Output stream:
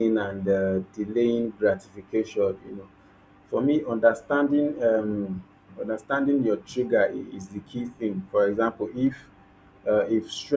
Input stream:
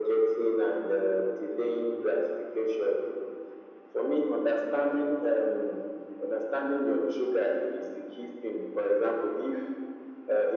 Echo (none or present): present